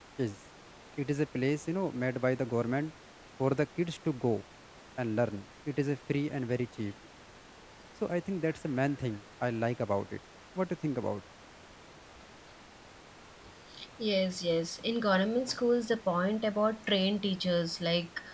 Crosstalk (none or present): none